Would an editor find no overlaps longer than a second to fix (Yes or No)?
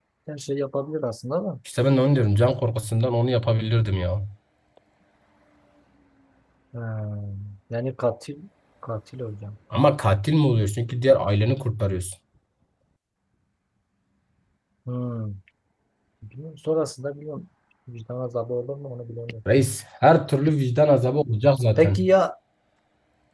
Yes